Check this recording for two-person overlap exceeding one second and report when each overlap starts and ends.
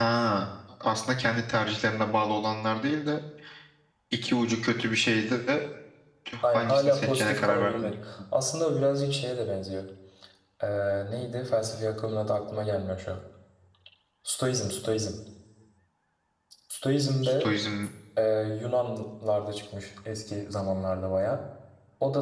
6.5-7.9

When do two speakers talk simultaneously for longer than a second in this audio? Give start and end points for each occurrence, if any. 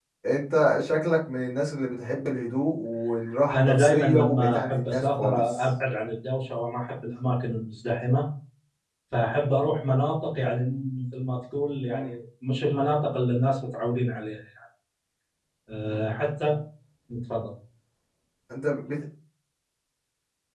3.5-5.6

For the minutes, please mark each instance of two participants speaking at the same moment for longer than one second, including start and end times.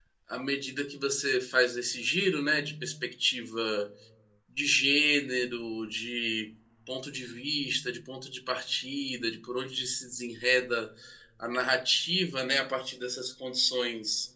none

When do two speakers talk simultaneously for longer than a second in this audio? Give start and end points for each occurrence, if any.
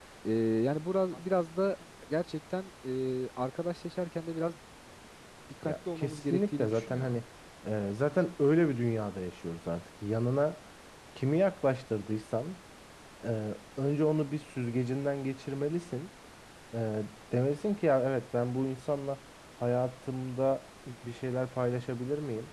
5.6-7.1

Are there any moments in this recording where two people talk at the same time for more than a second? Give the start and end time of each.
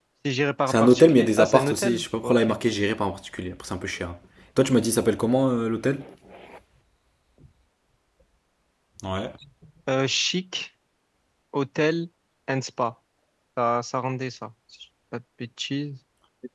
0.7-2.5

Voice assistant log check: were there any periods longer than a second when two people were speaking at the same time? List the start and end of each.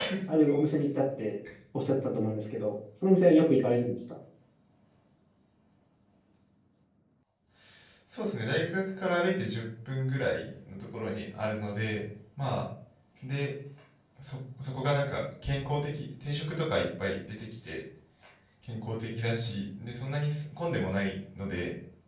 none

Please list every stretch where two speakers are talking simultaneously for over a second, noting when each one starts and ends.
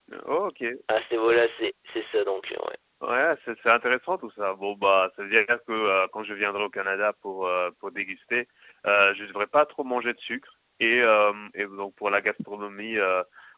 none

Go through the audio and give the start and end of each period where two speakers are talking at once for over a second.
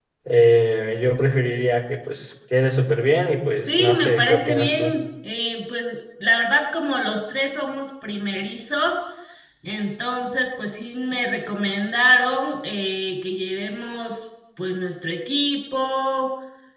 3.7-5.0

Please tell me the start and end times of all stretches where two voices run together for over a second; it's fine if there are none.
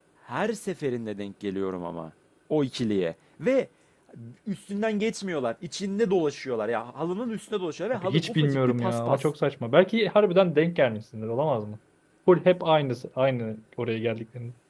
7.9-9.3

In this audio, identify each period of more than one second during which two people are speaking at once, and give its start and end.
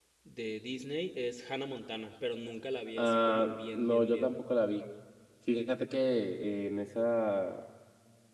3.0-4.4

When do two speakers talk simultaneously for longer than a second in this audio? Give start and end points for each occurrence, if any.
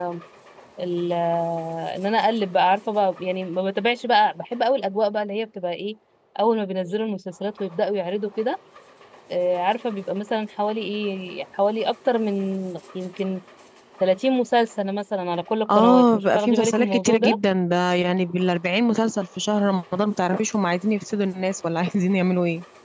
15.8-17.4

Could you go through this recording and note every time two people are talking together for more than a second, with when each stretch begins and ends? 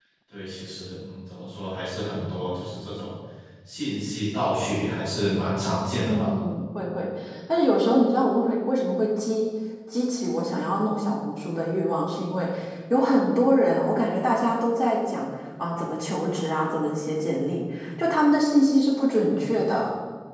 none

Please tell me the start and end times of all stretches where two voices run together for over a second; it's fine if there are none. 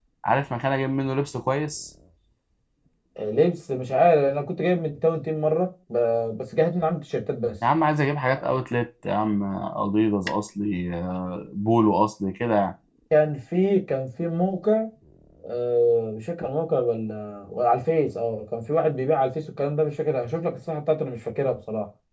none

